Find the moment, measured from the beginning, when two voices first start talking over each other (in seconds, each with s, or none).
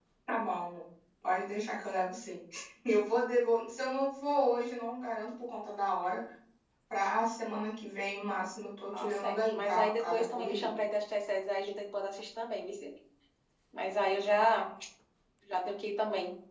8.9 s